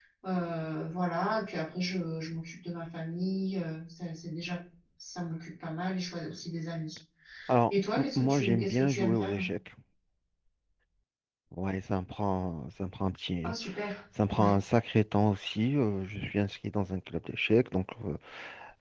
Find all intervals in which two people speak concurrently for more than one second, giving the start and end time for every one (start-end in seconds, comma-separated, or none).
7.7-9.4